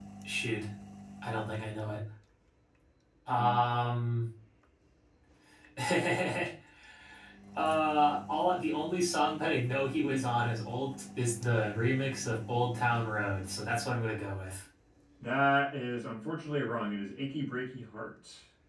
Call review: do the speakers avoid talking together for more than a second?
Yes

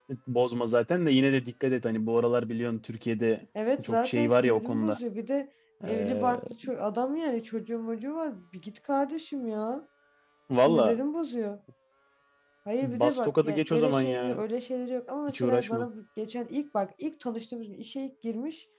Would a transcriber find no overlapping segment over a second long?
No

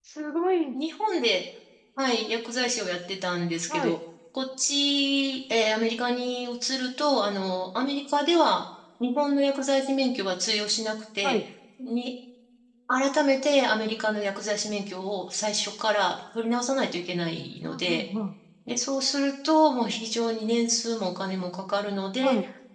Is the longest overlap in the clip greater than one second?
No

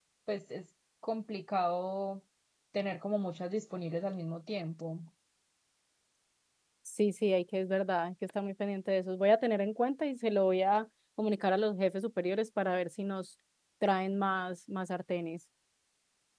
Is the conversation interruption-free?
Yes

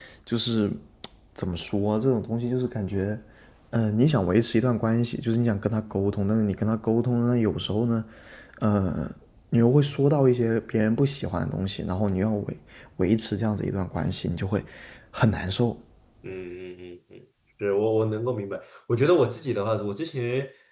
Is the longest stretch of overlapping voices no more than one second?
Yes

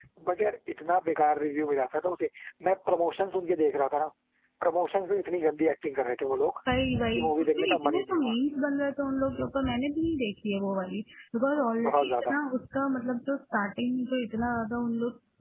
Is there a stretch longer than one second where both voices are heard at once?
Yes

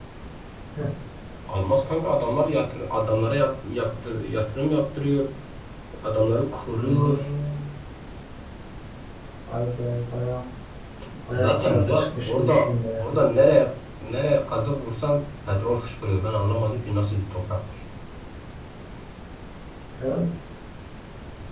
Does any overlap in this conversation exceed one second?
Yes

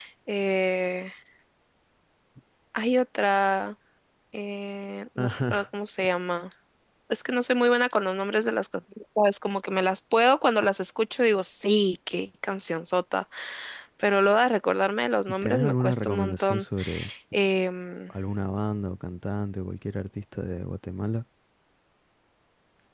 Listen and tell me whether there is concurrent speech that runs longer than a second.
Yes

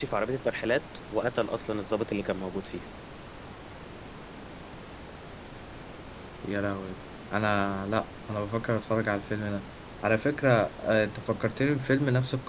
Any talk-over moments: No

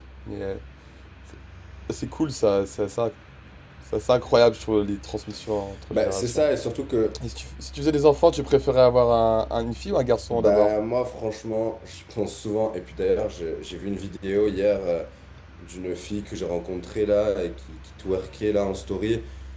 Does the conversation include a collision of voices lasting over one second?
No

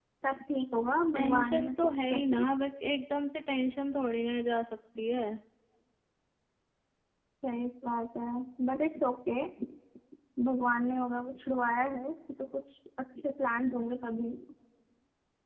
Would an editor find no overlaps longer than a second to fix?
No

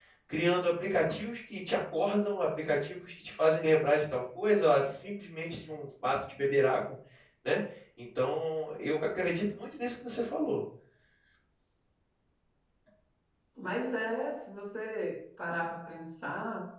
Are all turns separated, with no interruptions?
Yes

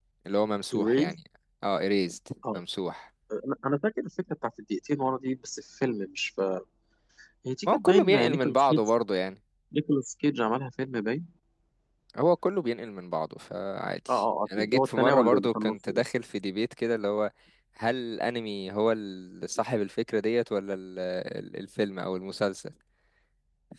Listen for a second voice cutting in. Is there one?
Yes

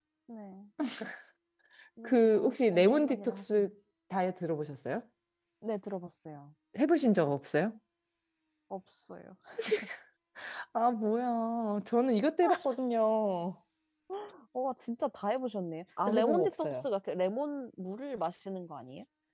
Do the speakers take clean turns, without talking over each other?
No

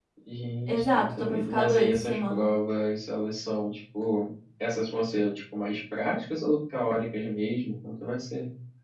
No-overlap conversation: No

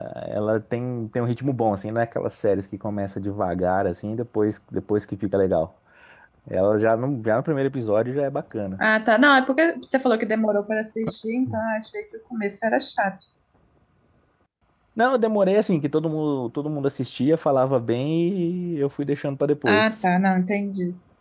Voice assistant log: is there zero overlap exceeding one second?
Yes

